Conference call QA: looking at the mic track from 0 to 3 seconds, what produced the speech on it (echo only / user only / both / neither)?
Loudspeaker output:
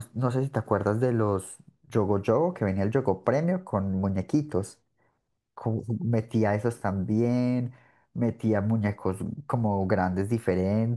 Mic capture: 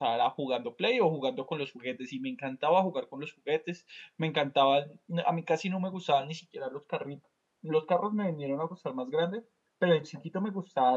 user only